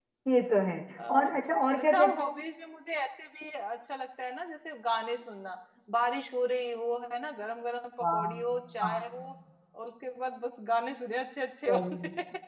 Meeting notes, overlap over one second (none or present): none